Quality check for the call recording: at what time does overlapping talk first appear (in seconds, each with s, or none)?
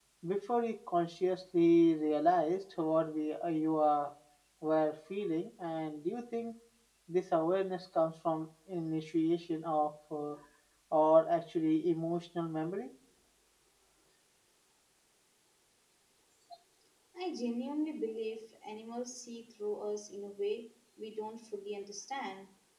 none